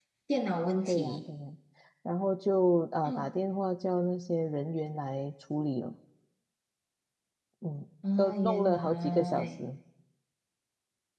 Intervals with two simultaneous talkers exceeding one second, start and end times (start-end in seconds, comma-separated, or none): 8.2-9.6